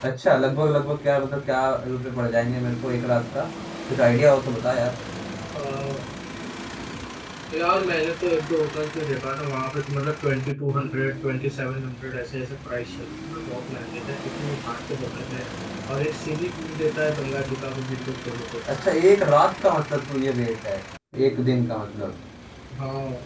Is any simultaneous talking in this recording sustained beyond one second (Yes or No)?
No